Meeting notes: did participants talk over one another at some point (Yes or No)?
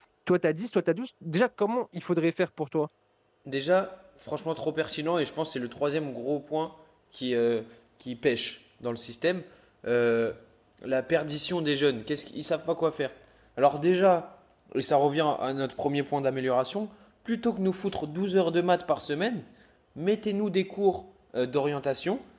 No